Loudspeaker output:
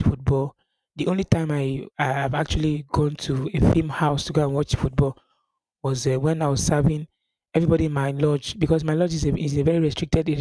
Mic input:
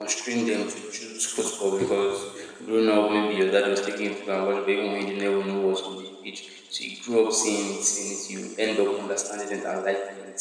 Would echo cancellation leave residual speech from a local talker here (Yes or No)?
Yes